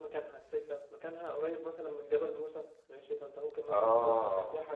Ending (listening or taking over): listening